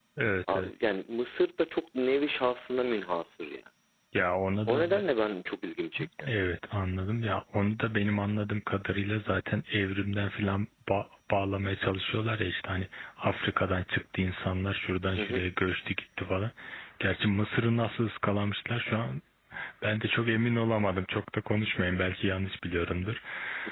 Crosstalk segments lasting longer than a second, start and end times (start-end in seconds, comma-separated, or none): none